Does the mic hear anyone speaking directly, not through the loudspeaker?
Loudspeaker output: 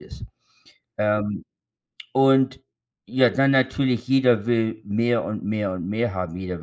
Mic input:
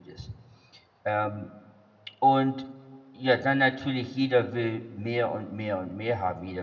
No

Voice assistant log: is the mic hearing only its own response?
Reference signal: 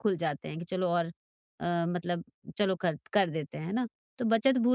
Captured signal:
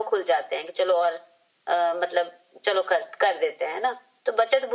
Yes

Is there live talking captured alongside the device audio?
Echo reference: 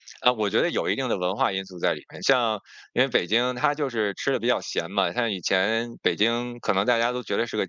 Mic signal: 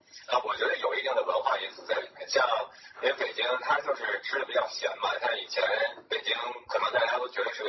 No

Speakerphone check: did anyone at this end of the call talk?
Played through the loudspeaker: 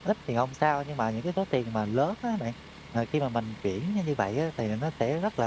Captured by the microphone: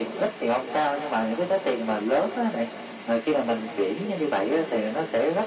No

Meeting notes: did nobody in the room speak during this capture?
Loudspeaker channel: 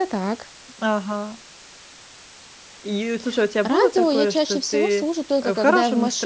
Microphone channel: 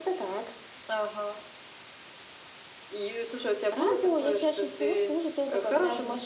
Yes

